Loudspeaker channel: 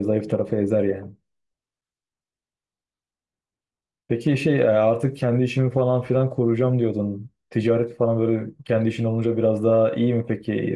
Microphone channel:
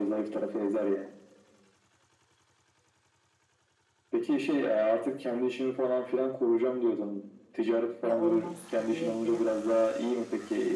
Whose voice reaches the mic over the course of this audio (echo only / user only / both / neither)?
both